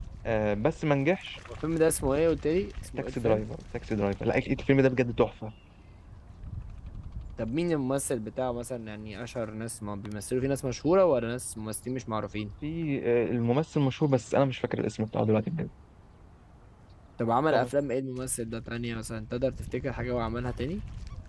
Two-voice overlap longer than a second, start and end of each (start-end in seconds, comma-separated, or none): none